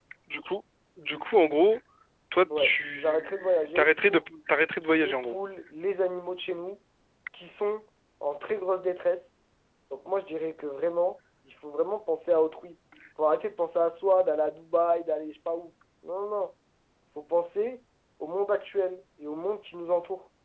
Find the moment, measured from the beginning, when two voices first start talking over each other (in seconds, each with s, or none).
2.6 s